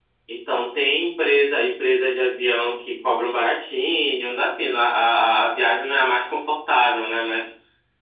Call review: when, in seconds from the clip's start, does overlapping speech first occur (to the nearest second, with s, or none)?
none